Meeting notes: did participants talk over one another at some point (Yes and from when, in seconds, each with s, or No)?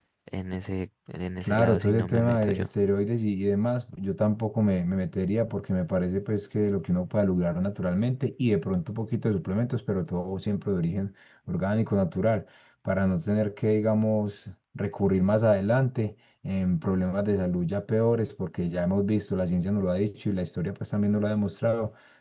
Yes, from 1.4 s